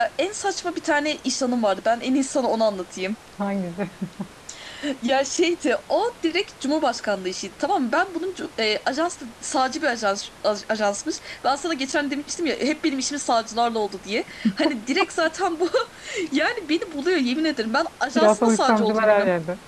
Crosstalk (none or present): present